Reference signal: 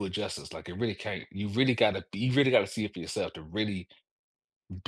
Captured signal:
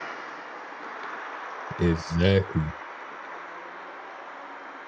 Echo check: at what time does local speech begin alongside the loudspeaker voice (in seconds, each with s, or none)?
1.8 s